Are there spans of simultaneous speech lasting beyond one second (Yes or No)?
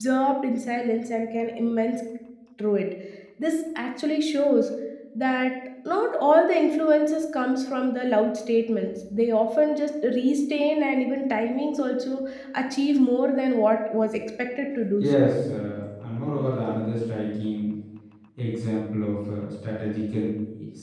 No